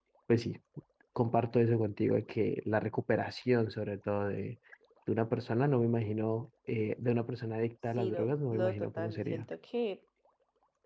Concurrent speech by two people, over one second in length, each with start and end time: 8.0-9.4

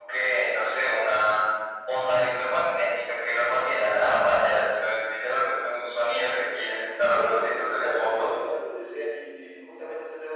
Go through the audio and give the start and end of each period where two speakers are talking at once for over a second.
7.0-8.3

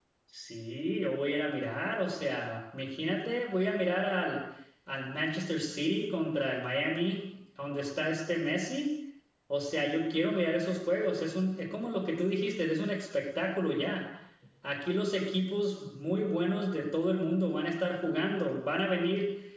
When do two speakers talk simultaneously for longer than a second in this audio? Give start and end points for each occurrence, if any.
none

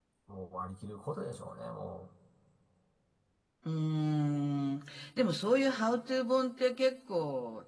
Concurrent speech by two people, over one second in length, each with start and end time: none

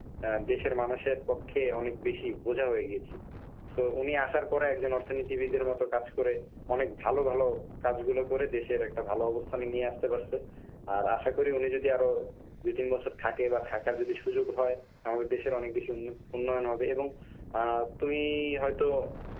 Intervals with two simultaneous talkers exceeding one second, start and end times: none

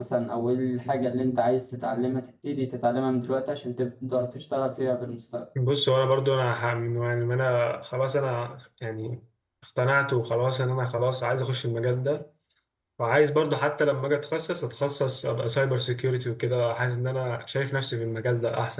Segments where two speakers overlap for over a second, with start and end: none

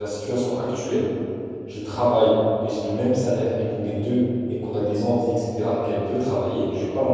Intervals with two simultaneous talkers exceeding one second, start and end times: none

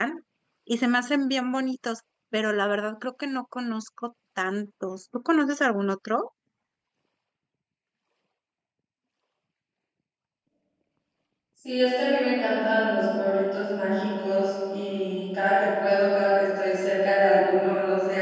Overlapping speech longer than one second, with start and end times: none

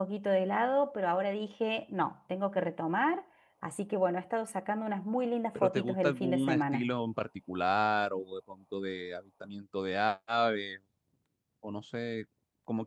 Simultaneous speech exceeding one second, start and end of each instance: 5.6-6.9

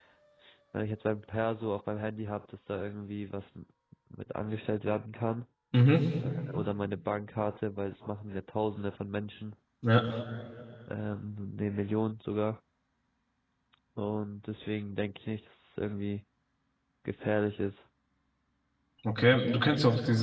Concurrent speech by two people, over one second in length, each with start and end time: none

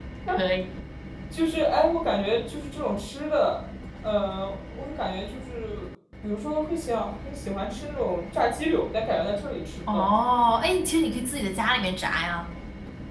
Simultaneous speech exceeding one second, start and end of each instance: none

